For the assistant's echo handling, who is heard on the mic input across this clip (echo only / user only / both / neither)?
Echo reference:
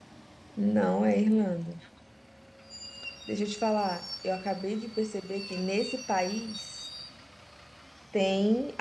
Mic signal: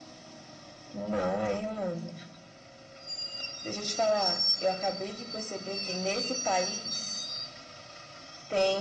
echo only